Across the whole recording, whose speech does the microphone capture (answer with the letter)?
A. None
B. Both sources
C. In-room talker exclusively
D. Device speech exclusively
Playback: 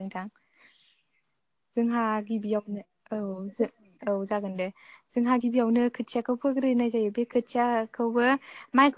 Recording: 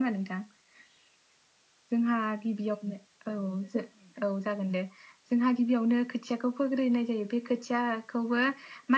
D